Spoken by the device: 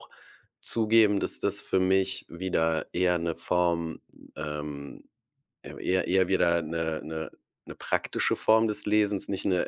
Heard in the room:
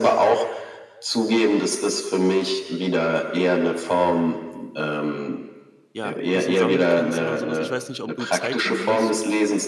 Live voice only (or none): ja, 'n bisschen sammeln kannst oder so was. Ich weiß nicht, ob du Zeitung liest?